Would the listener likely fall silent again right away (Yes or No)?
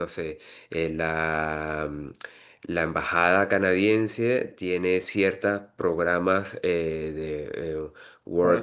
Yes